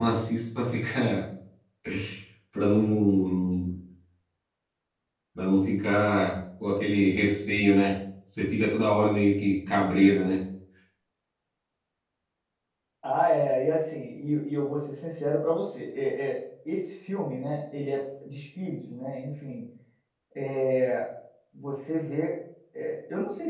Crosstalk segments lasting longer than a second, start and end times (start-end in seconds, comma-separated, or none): none